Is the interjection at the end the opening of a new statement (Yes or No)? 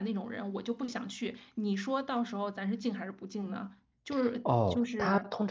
Yes